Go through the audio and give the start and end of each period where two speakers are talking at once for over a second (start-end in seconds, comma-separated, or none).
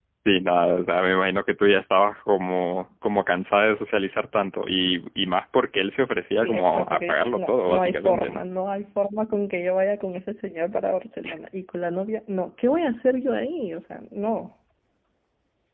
6.4-8.4